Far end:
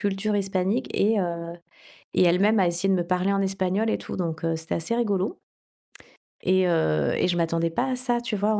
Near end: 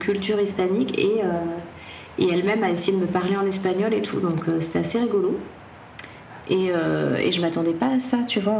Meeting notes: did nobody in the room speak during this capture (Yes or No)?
Yes